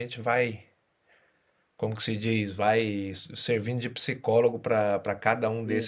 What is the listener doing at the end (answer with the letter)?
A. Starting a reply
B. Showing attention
B